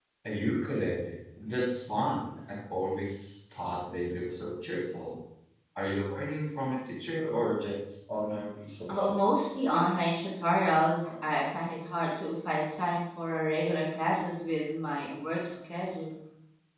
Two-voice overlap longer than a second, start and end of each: none

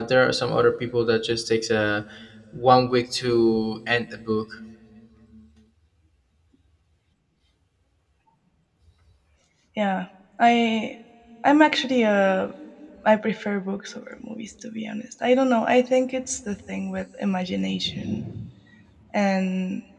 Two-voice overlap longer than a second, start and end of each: none

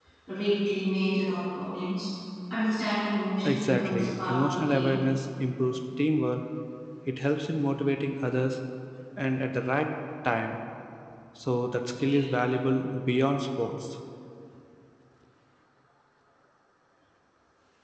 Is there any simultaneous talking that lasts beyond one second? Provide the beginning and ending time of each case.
3.4-5.0

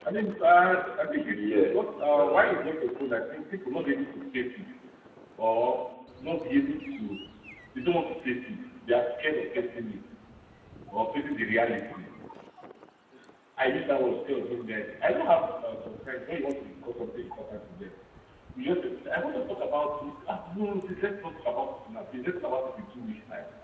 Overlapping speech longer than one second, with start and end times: 1.1-2.7

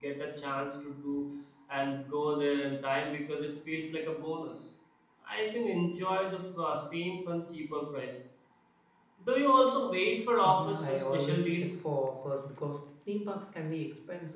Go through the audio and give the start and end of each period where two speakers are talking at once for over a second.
10.5-11.8

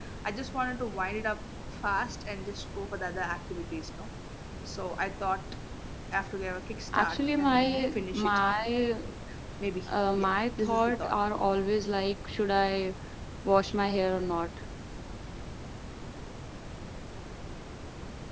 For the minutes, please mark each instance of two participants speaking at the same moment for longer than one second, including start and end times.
7.0-8.4, 9.9-11.2

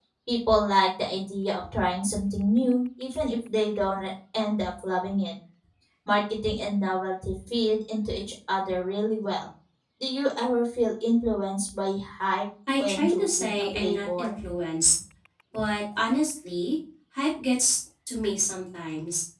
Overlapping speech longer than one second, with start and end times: 12.8-14.3

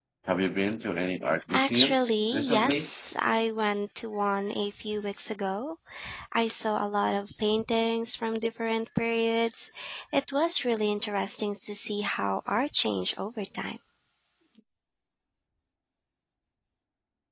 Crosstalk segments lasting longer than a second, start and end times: 1.5-2.9

